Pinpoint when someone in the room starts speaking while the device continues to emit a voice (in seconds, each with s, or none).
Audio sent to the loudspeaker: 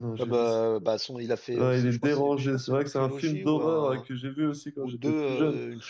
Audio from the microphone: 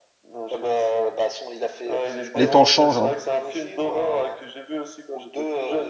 2.3 s